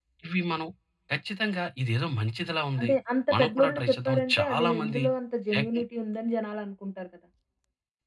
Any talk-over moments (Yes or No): Yes